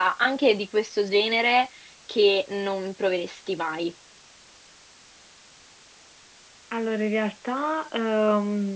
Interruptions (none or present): none